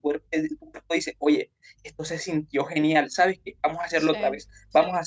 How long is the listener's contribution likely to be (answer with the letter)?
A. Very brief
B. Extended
A